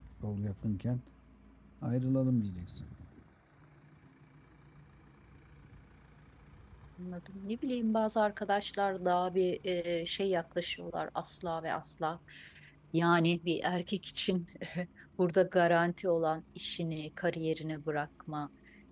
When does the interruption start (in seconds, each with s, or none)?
none